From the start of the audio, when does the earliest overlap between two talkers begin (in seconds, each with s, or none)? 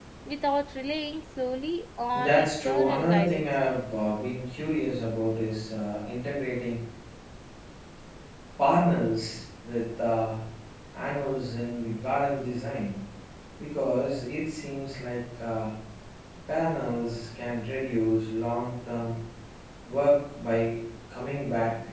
2.1 s